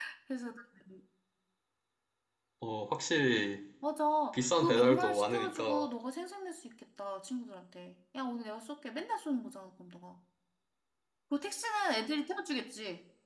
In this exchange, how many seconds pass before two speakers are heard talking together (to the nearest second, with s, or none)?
4 s